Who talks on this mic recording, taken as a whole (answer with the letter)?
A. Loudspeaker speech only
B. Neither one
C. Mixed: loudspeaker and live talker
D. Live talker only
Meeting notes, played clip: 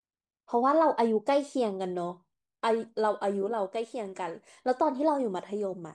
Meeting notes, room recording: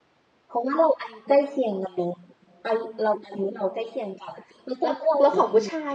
C